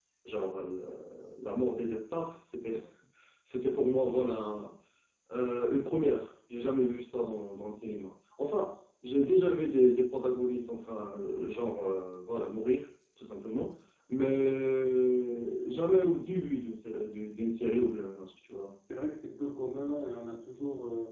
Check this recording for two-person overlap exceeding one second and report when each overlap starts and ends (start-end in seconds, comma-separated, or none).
none